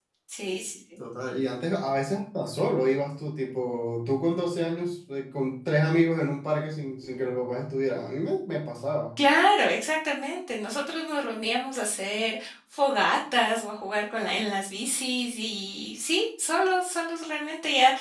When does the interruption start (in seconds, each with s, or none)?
none